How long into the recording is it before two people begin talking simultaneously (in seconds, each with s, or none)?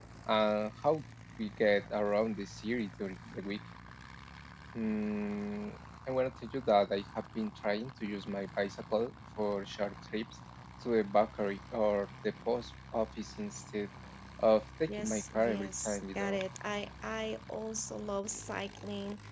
14.9 s